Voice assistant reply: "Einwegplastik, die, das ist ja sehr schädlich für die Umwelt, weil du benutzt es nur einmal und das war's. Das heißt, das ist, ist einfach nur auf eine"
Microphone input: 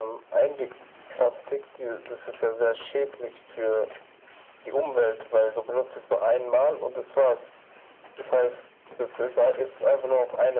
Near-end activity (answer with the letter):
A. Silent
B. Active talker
A